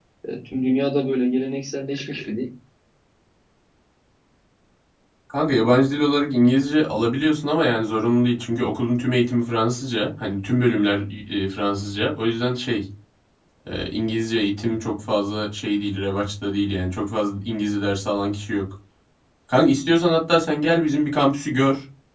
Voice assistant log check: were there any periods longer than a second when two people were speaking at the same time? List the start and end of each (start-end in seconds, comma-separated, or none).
none